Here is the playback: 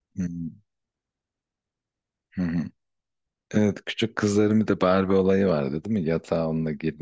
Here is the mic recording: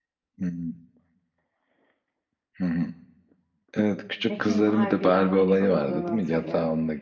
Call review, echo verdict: present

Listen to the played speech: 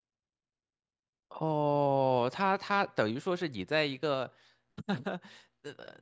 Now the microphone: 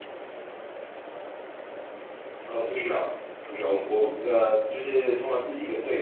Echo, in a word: none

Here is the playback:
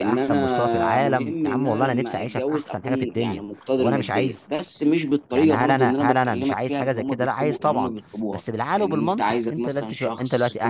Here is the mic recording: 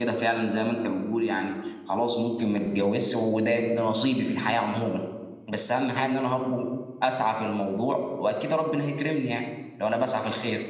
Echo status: none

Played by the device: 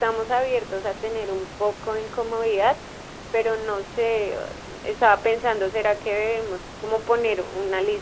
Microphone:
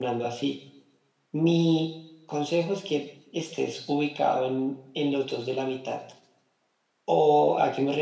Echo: none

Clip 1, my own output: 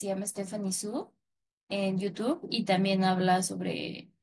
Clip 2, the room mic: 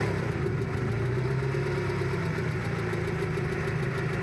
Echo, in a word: none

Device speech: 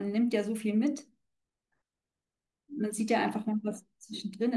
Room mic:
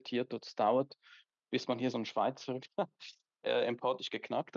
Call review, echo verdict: none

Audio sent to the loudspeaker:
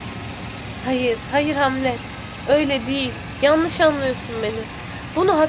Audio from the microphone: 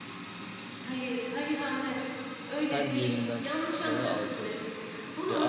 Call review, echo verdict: present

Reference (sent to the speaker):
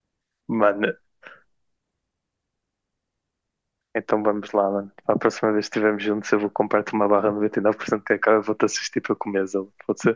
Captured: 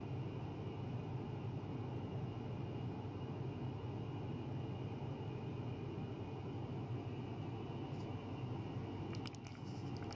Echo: none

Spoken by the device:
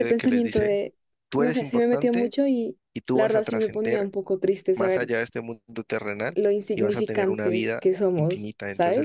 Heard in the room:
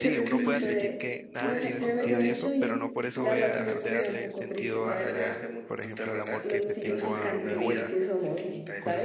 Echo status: present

